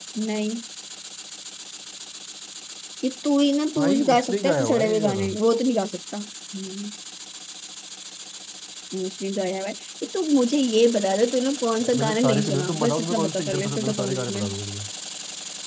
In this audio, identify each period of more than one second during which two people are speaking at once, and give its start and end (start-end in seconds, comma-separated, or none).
3.8-5.3, 11.8-14.4